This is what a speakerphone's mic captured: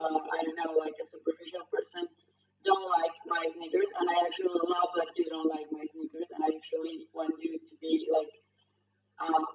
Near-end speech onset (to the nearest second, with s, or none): none